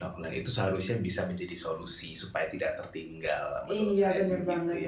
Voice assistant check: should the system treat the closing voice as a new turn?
Yes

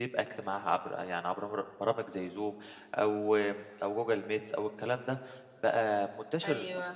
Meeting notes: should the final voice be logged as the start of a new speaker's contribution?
No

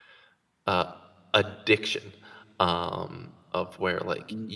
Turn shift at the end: No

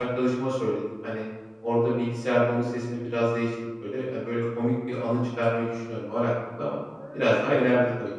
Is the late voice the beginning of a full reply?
Yes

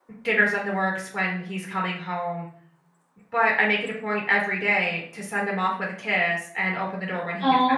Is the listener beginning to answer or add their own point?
Yes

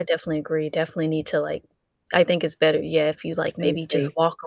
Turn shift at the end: No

